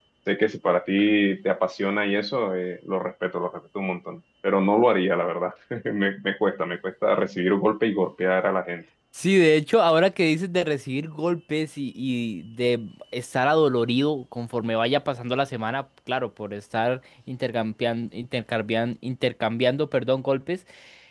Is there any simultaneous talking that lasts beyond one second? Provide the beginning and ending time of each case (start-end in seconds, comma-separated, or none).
none